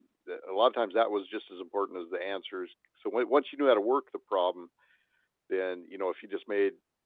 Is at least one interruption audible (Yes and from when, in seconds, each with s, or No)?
No